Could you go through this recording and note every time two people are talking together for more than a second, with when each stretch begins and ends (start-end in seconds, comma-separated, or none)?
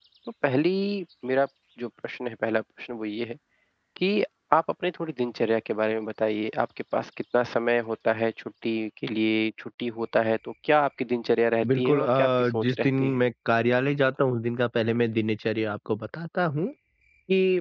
11.8-13.2